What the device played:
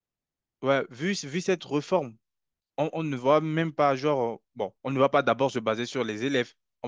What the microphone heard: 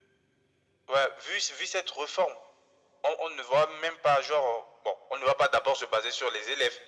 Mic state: echo only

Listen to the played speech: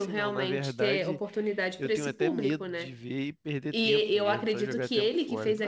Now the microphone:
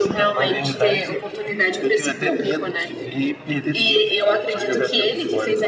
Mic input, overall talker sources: echo only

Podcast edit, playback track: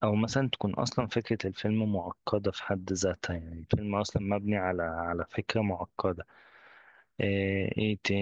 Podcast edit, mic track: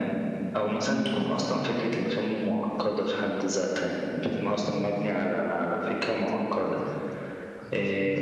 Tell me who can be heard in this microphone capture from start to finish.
both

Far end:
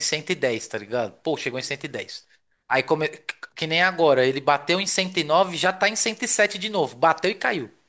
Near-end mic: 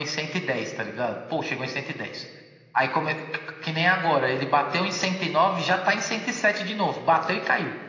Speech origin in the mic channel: echo only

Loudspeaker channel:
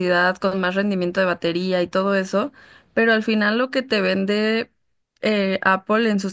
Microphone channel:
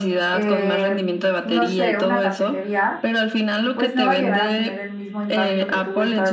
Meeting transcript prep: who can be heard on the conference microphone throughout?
both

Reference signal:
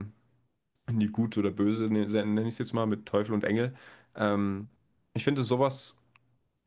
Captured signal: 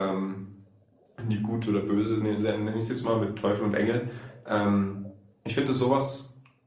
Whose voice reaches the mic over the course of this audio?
echo only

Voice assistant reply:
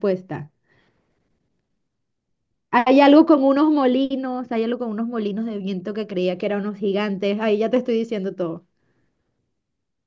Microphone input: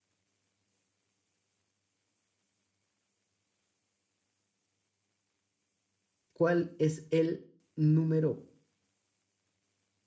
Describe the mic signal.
user only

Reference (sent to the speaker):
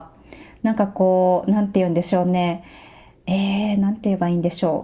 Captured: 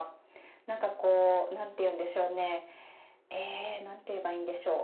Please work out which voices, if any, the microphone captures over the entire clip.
echo only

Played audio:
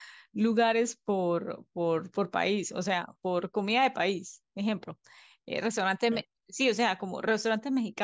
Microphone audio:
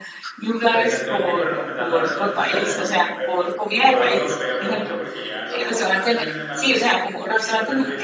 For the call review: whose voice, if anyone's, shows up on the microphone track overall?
both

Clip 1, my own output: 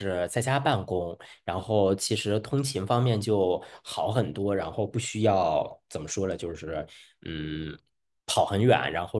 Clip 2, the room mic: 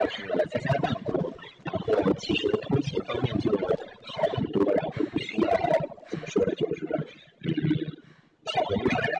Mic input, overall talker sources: echo only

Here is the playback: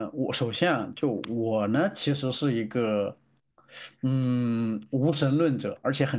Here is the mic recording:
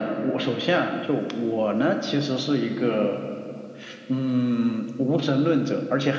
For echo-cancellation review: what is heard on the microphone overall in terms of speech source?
echo only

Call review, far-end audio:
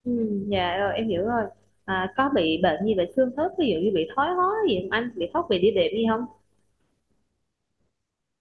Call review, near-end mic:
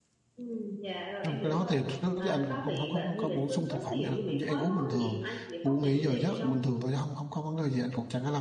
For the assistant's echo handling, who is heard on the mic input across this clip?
both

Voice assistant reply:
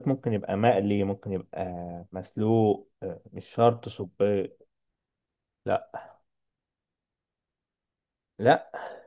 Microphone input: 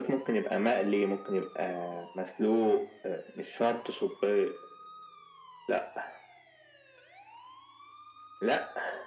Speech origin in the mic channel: echo only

